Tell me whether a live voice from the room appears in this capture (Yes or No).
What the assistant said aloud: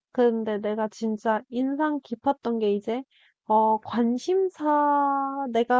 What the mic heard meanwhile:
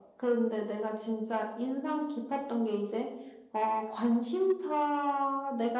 No